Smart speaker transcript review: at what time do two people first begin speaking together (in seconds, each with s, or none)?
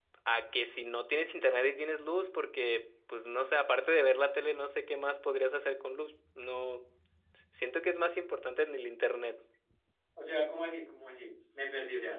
none